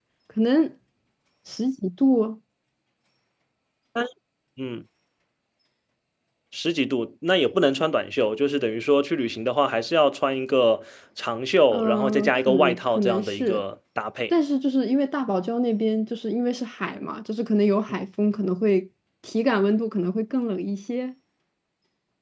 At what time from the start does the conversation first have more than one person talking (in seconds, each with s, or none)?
11.7 s